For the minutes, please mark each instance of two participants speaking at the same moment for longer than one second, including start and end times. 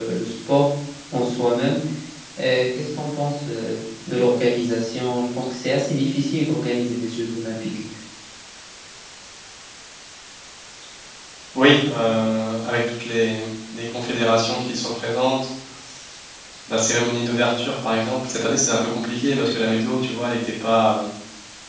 none

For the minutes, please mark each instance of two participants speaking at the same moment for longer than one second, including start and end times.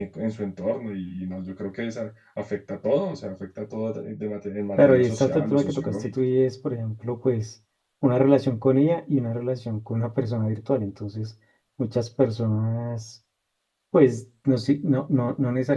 4.8-6.1

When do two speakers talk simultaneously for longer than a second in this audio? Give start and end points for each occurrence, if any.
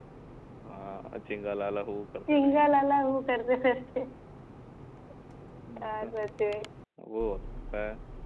none

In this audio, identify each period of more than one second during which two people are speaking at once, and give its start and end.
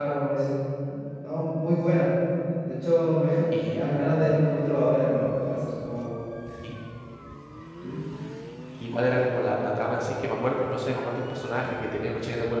none

